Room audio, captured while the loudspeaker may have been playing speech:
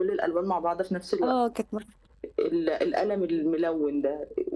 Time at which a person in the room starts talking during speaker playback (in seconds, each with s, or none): 1.2 s